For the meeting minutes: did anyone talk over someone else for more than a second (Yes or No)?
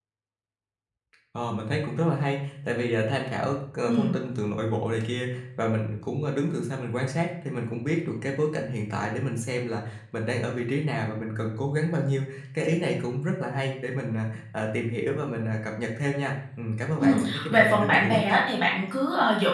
Yes